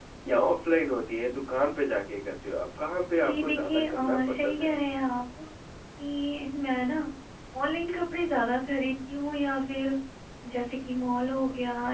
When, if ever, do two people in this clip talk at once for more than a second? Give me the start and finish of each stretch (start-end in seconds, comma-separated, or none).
3.2-4.7